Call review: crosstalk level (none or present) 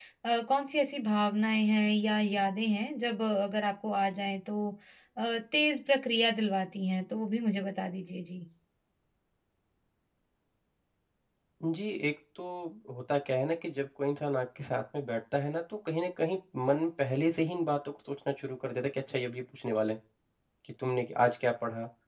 none